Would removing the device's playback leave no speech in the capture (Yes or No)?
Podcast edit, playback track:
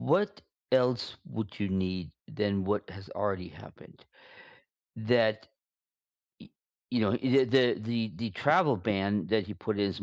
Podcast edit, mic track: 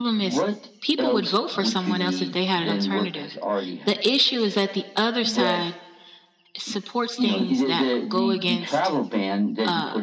No